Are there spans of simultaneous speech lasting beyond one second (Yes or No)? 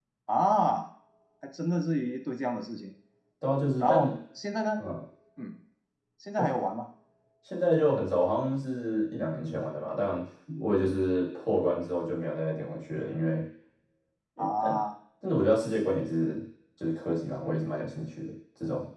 No